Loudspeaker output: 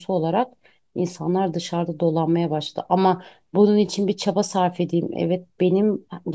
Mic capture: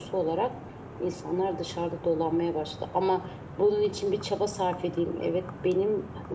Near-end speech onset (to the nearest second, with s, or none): none